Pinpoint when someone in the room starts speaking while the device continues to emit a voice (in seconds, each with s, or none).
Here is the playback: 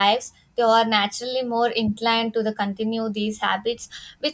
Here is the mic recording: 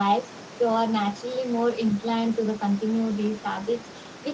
none